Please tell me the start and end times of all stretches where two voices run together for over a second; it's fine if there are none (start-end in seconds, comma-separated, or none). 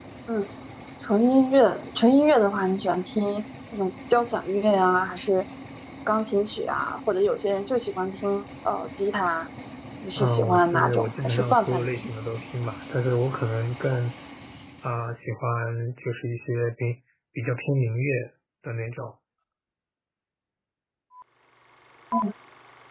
10.2-12.1